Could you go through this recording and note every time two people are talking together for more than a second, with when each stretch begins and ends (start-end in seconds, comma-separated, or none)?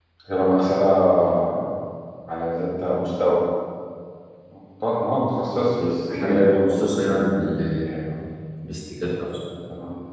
5.9-7.9